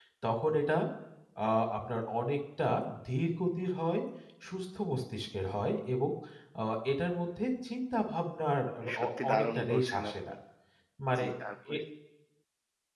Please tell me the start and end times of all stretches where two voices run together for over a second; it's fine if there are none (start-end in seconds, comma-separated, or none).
8.9-10.3